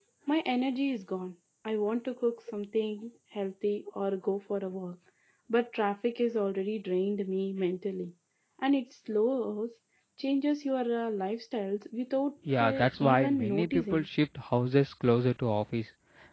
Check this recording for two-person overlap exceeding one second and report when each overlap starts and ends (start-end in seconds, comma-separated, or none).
12.6-14.1